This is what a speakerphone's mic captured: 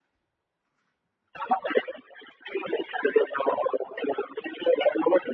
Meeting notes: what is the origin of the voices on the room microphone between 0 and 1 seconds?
neither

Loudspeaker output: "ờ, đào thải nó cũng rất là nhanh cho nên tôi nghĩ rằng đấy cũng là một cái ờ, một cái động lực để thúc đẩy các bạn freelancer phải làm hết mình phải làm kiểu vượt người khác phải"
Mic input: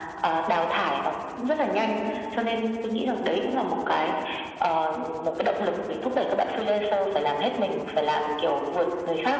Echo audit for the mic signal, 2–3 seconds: echo only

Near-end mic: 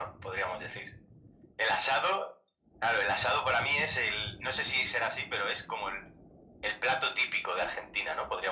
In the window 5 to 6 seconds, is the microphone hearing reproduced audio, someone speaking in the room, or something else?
echo only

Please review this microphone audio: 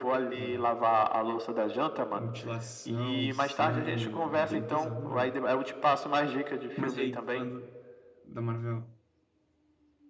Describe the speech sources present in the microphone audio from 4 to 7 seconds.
both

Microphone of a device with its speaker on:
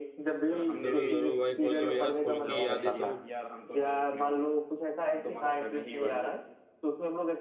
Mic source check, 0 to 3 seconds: both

